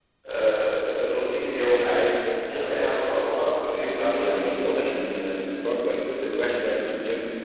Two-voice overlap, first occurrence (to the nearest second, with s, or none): 3 s